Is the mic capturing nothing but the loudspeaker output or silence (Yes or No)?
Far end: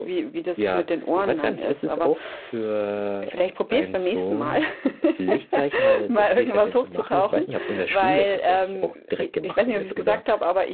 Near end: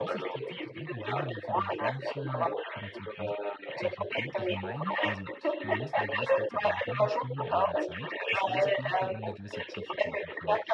No